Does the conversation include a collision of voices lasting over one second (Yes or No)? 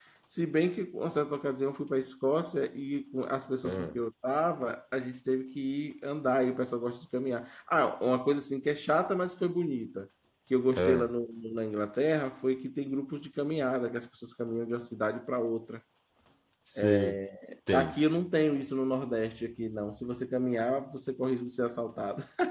No